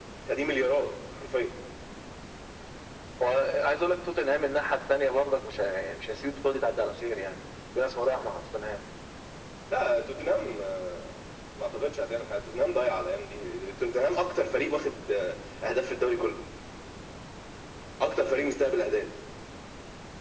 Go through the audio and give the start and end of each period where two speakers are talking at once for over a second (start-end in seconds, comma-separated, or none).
none